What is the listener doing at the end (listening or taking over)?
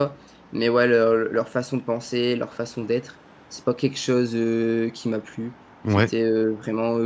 listening